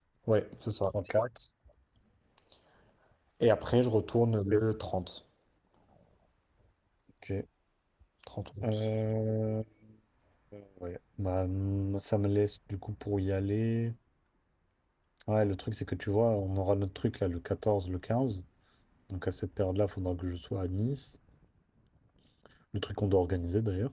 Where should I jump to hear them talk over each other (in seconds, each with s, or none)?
none